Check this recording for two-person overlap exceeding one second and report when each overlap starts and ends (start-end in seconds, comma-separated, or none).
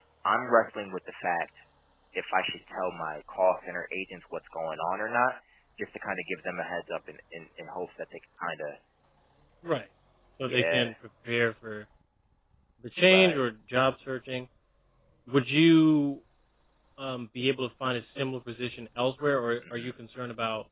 none